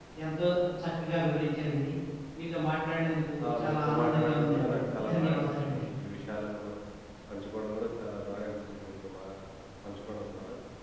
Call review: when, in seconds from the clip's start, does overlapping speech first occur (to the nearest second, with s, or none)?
3 s